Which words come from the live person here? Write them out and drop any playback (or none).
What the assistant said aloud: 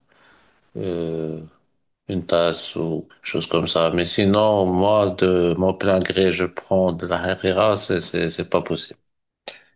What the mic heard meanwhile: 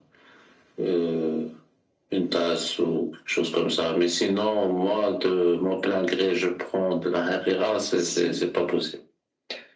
si